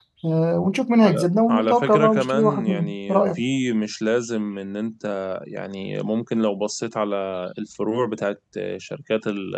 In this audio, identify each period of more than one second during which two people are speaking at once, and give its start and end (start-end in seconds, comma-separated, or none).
1.0-3.4